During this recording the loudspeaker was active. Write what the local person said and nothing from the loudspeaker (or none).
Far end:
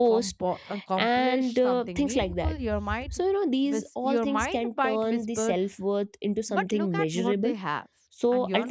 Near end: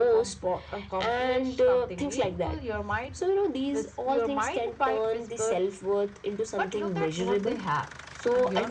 none